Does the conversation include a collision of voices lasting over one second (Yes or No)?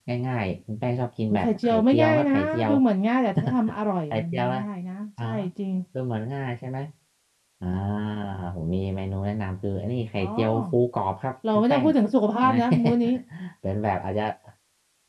Yes